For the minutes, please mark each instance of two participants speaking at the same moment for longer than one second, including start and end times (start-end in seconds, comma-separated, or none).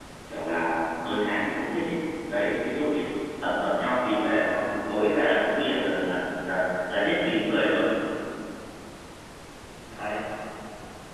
none